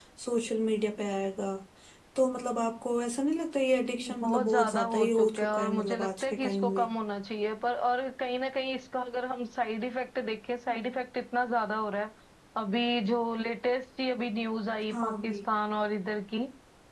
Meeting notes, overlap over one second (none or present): present